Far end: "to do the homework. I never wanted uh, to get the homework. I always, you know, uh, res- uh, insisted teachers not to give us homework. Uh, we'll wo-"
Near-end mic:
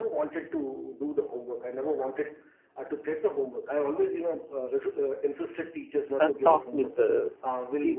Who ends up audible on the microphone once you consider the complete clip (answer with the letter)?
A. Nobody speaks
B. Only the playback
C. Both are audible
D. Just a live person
C